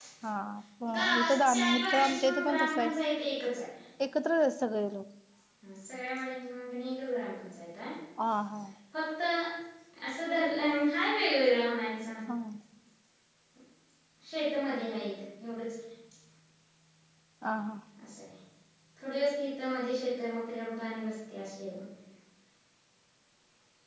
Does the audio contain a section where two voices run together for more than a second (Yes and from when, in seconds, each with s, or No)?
Yes, from 0.9 s